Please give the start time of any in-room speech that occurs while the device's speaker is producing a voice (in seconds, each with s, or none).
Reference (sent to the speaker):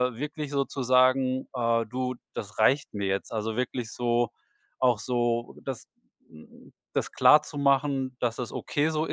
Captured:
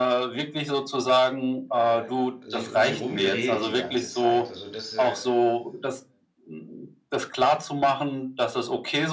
1.7 s